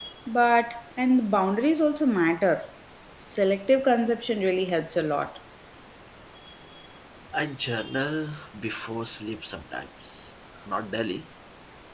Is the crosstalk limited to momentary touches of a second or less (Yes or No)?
Yes